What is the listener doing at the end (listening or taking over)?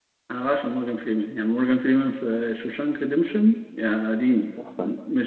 taking over